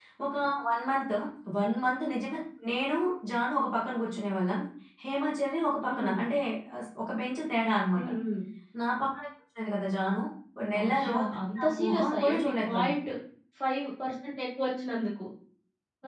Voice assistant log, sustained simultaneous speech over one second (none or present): present